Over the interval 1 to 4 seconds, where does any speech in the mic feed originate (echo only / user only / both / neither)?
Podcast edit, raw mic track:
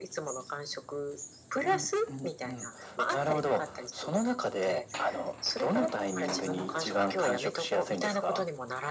echo only